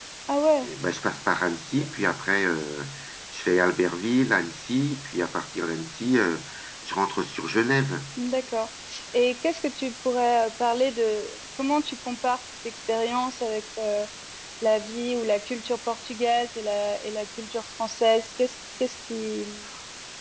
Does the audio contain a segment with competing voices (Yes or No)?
No